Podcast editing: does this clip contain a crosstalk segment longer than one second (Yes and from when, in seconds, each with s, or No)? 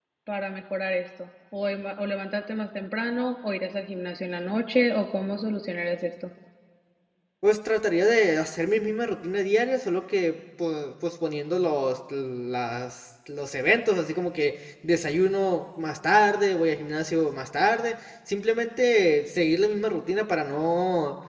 No